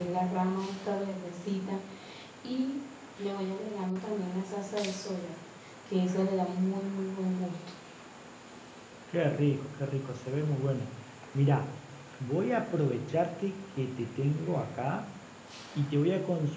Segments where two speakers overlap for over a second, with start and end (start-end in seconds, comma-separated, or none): none